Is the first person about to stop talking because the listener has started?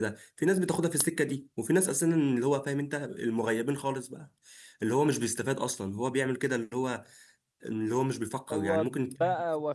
Yes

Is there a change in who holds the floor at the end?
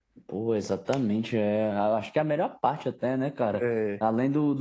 No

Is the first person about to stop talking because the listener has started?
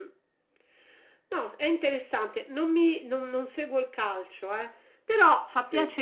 No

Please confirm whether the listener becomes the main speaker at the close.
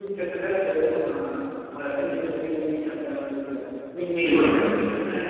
No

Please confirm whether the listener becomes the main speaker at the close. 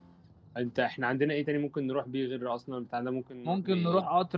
Yes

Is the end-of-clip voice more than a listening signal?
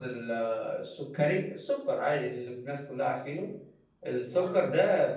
No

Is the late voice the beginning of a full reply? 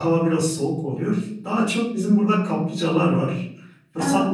No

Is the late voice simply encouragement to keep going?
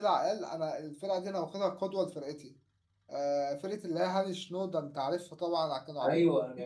Yes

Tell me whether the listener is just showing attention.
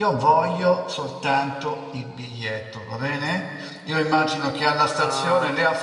Yes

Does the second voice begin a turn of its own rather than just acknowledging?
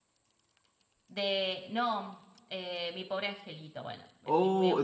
Yes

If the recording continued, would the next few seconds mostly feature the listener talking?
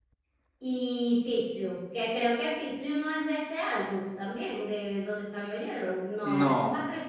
Yes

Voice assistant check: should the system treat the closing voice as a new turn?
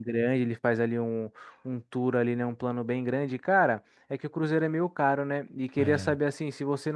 No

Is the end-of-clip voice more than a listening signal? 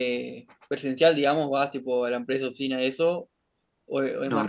Yes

